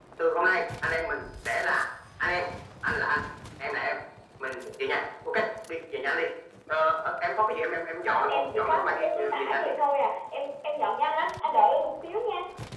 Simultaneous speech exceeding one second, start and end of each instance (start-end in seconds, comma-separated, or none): 8.1-9.7